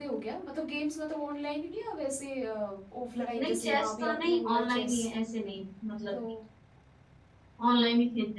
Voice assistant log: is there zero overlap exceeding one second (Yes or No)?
No